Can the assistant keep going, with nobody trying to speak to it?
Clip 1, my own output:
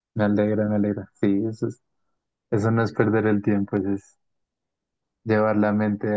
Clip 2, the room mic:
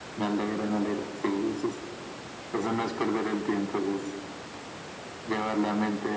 Yes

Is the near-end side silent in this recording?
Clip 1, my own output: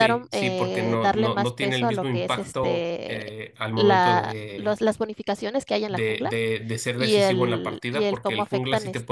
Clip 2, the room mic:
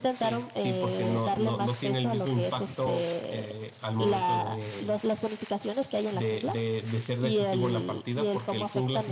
Yes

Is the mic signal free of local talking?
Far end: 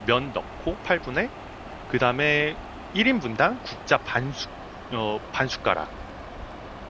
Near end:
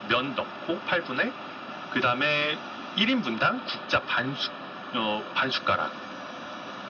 Yes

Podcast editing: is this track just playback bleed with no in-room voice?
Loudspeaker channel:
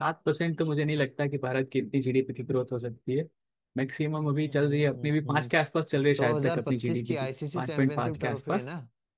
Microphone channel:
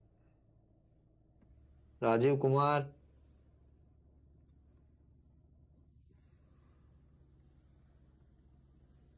No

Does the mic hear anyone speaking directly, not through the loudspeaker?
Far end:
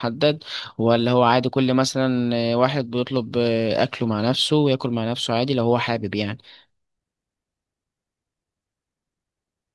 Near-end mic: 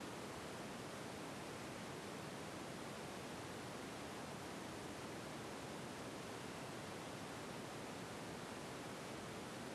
No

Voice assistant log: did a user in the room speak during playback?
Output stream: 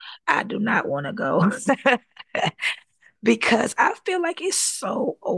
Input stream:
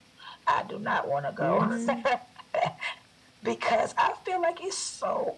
Yes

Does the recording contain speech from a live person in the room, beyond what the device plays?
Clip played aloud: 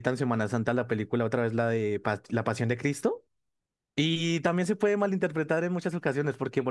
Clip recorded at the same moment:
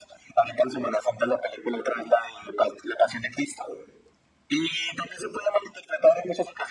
No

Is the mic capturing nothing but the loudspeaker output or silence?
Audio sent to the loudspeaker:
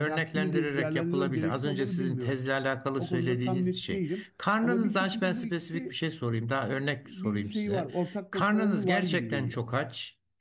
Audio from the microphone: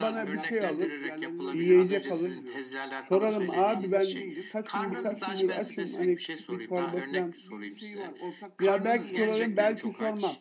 No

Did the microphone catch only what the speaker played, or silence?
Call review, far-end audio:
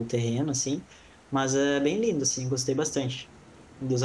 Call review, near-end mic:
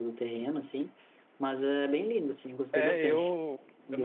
No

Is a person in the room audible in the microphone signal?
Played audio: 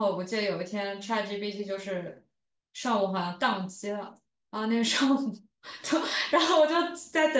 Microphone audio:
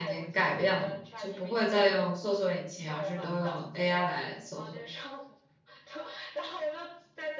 Yes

